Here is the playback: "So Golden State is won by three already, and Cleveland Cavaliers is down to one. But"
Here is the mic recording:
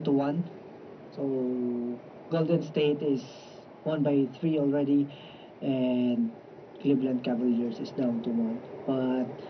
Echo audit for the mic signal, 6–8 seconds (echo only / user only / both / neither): echo only